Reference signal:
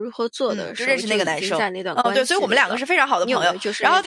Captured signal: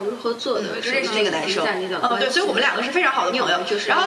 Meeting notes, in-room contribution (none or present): present